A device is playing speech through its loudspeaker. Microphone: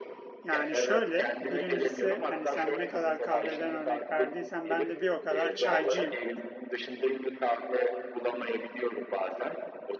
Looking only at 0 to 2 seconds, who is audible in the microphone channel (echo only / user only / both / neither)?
both